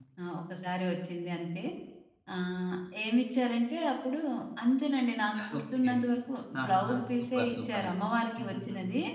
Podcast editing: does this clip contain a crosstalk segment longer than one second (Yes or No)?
Yes